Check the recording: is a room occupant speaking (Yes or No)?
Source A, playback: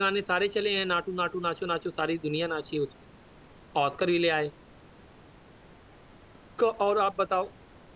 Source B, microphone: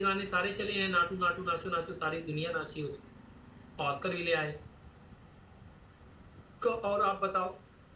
No